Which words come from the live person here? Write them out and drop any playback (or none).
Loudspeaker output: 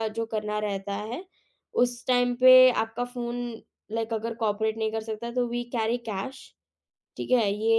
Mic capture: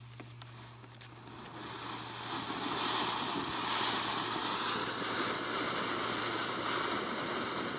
none